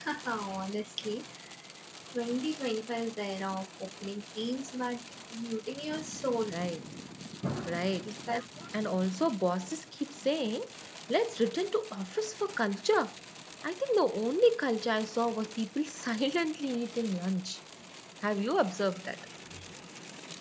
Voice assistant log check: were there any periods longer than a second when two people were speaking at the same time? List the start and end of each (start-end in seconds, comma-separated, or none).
none